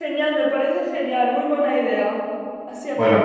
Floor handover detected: Yes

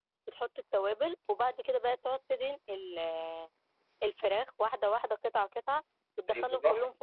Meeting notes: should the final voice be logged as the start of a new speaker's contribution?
Yes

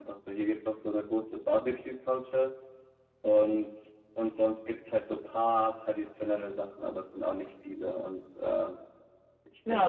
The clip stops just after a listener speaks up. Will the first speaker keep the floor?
No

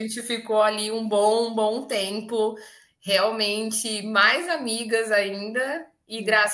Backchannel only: Yes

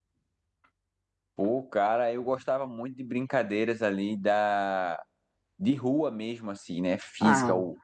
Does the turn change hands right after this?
No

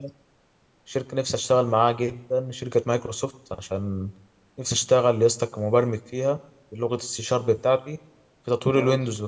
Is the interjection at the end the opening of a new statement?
No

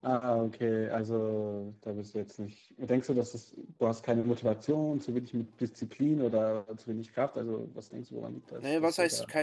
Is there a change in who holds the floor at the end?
Yes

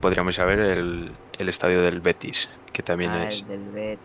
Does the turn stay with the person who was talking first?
No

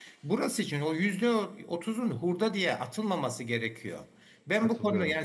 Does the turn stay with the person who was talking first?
Yes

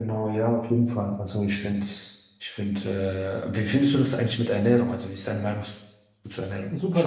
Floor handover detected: Yes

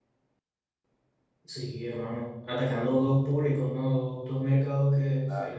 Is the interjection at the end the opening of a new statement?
No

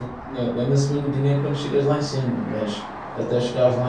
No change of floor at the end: Yes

